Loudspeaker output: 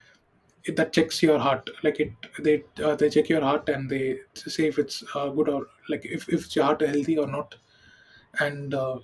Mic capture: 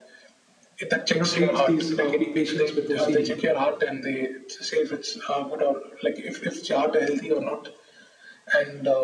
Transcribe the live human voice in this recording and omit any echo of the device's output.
you know treats these uh, pa- patients with ocd

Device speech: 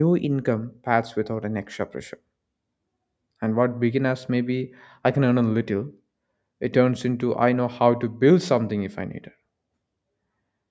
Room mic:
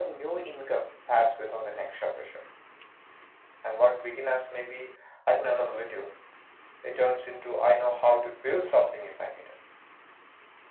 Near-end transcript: none

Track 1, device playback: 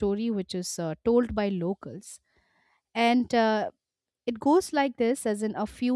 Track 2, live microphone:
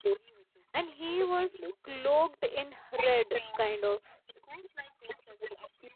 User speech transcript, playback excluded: and he was cloaked in red kind of

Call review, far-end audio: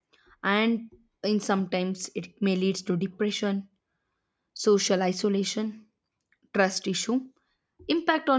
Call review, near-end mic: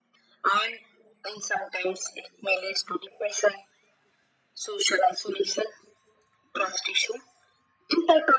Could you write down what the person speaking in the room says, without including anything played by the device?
none

